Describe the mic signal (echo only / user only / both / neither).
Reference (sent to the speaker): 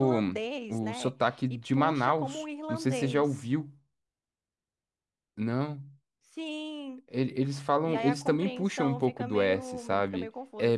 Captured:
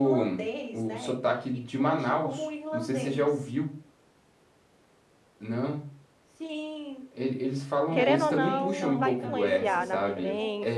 both